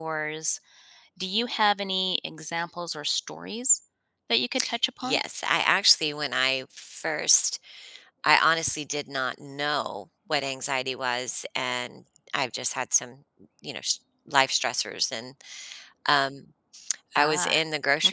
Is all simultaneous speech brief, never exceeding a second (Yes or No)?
Yes